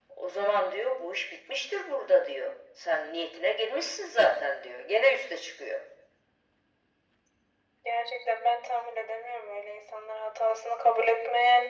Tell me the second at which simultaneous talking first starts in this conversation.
none

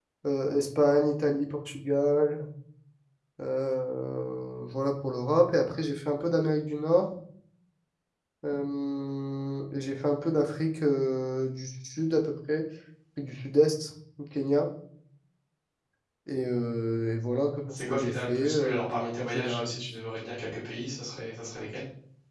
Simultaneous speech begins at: 18 s

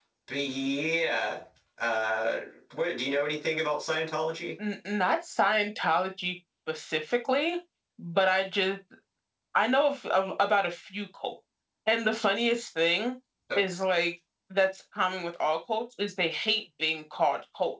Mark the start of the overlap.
none

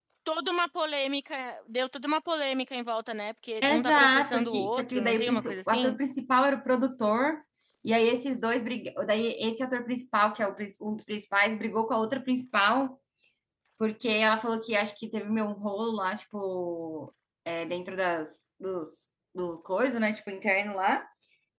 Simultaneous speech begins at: 4 s

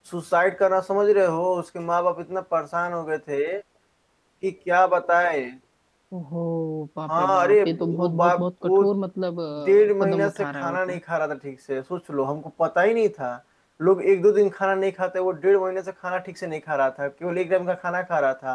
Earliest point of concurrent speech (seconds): 7 s

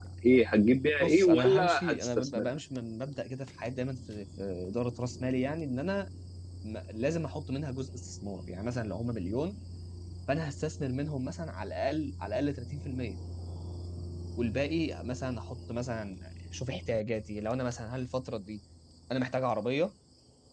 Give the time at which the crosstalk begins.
1 s

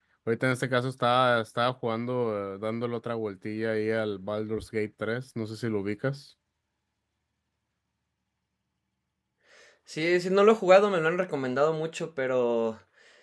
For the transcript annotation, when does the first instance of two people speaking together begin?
none

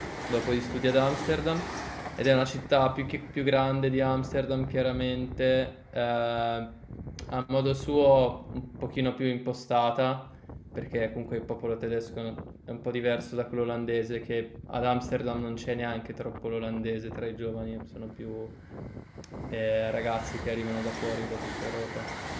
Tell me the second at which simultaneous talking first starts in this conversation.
none

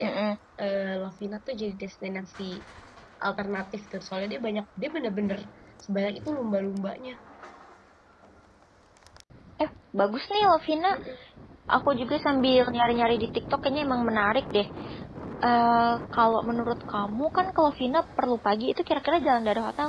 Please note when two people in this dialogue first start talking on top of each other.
none

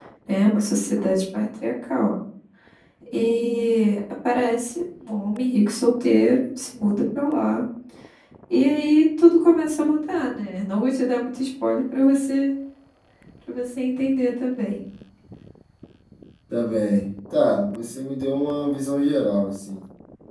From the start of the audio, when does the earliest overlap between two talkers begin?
none

